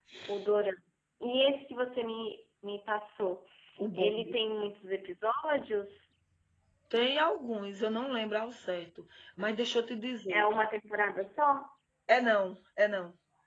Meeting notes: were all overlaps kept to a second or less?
Yes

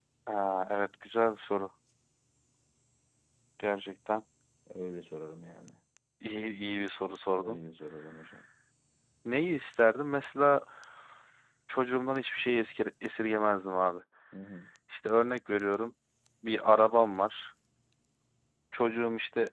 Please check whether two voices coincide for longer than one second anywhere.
No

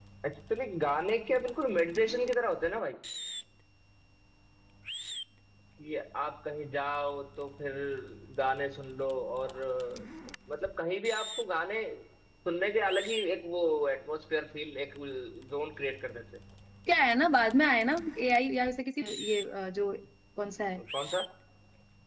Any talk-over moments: No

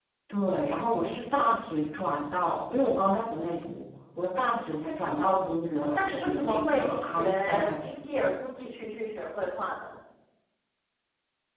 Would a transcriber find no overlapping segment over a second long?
No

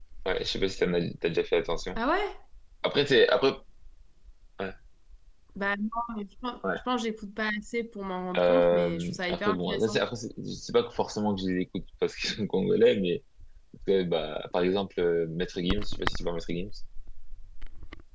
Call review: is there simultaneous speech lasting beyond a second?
Yes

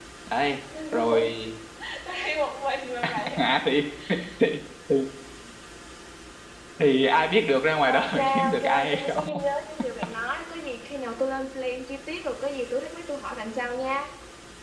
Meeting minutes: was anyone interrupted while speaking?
Yes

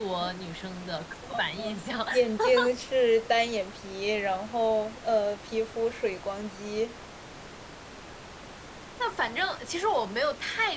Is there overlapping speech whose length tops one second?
No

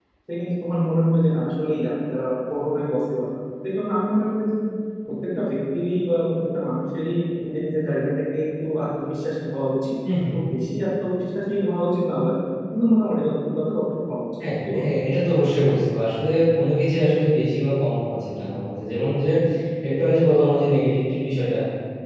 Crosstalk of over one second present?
No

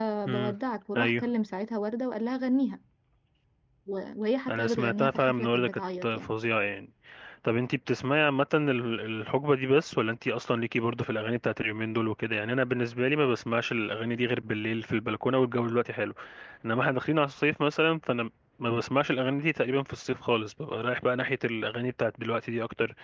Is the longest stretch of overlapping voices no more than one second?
No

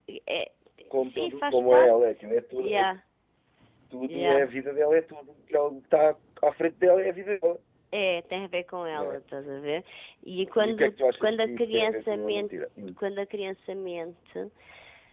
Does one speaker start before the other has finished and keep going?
Yes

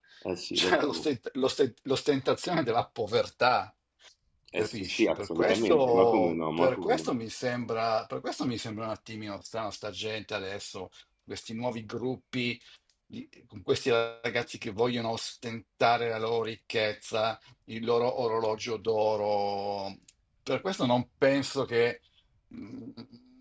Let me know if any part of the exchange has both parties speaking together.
Yes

